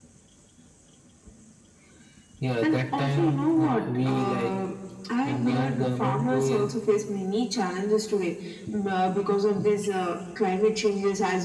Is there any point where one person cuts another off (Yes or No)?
Yes